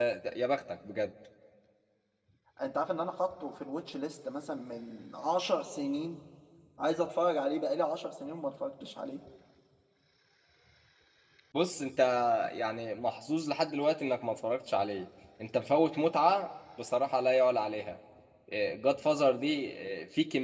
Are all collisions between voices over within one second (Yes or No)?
Yes